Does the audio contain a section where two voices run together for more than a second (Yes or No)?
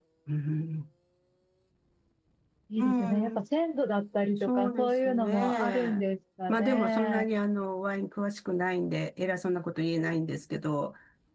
Yes